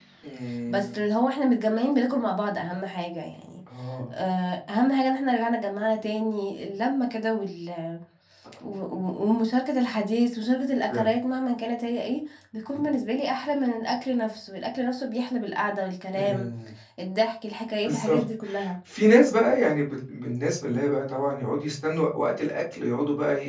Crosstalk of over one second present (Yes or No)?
No